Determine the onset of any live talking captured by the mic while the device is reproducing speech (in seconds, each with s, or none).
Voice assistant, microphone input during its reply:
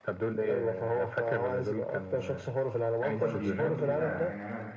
3.2 s